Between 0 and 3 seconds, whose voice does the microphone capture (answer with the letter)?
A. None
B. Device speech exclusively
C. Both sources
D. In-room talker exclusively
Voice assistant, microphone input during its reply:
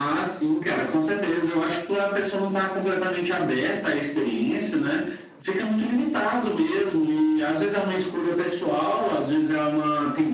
B